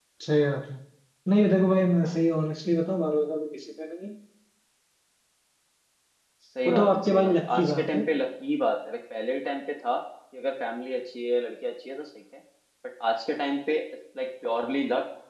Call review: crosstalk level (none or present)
present